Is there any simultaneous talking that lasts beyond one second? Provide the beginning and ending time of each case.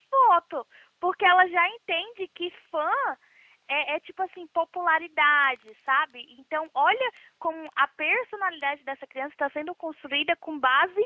none

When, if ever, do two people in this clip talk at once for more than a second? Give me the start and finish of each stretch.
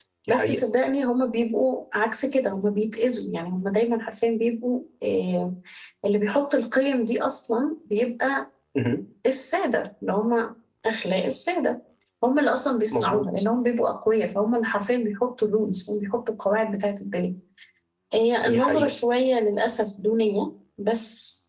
none

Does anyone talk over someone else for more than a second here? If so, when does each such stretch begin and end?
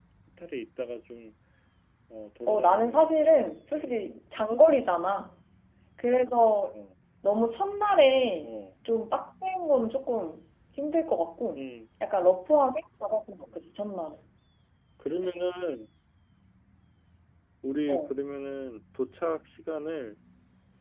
2.5-4.0

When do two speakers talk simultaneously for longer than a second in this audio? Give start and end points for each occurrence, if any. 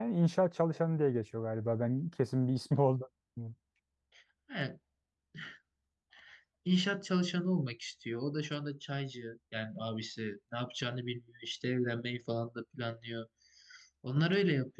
none

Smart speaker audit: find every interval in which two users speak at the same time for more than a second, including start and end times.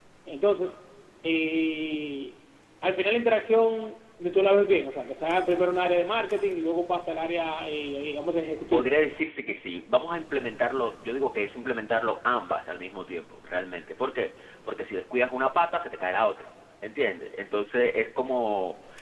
none

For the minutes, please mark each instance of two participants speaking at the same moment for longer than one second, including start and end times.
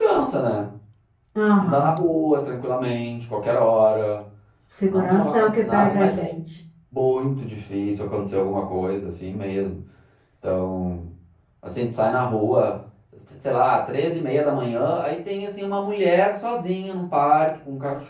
4.9-6.3

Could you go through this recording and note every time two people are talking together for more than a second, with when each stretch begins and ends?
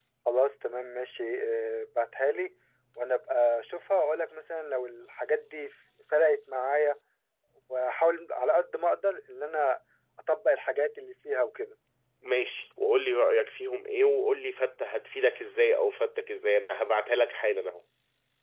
none

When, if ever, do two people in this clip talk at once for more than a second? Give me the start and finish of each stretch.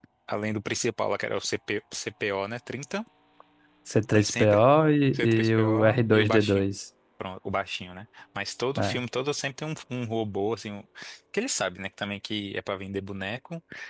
5.1-6.6

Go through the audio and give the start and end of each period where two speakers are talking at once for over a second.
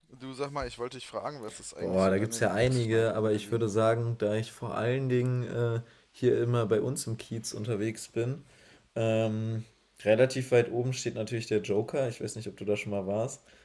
1.8-3.6

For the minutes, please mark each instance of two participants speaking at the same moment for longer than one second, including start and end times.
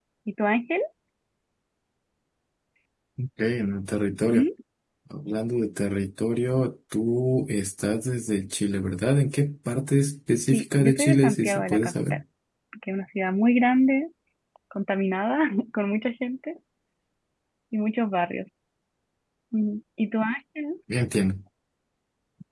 10.5-12.1

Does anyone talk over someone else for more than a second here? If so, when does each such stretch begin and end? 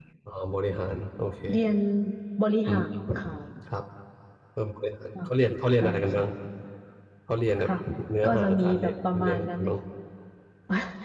8.2-9.7

